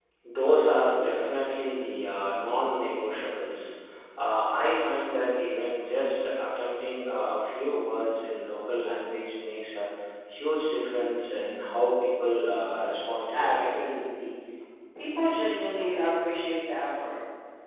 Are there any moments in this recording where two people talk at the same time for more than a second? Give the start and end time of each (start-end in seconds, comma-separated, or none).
none